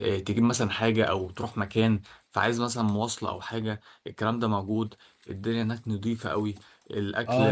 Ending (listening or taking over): taking over